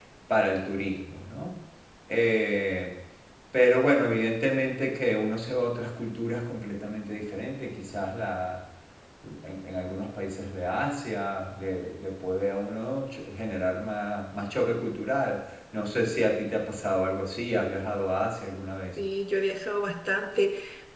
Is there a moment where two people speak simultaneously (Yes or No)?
No